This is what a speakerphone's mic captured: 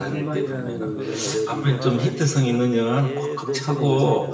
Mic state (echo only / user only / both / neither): both